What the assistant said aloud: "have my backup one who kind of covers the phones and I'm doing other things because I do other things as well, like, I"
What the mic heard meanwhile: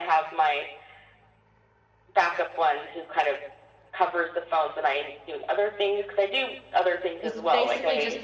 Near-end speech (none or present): present